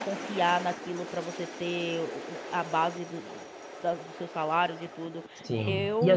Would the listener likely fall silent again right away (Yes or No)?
No